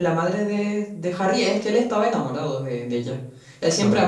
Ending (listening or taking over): listening